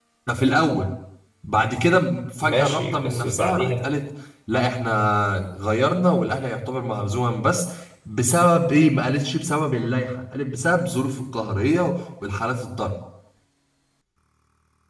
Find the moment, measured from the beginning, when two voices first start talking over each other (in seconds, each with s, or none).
2.4 s